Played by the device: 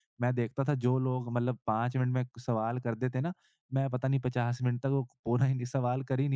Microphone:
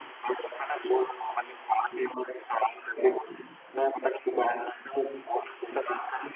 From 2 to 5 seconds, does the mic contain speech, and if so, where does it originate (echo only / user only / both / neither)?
echo only